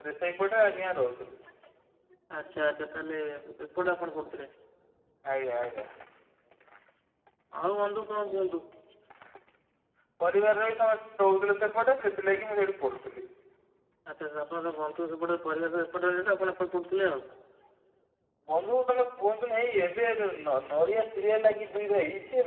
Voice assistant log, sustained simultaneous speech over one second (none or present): none